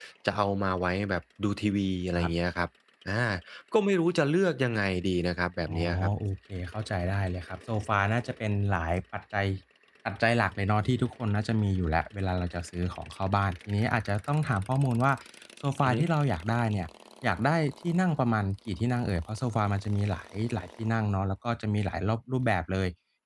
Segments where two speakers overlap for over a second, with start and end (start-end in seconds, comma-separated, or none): none